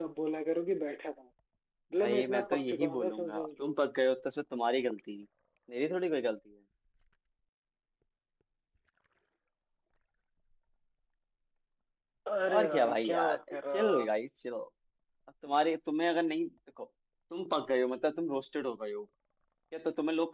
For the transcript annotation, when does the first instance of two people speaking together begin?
2.0 s

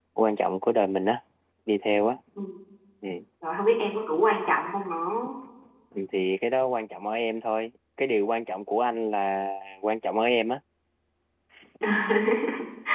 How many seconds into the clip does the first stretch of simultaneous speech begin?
none

